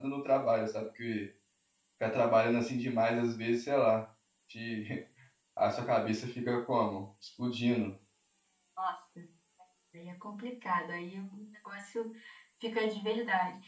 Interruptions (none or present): none